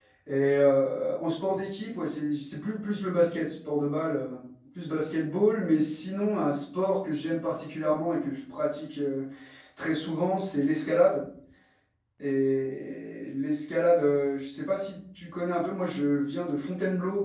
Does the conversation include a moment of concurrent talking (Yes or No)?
No